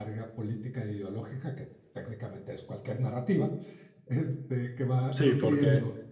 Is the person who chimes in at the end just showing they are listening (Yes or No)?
No